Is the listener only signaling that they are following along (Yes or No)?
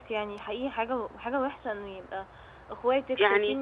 Yes